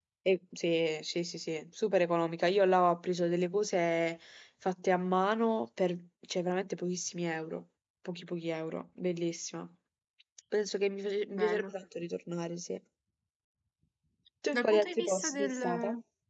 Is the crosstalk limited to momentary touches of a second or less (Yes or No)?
No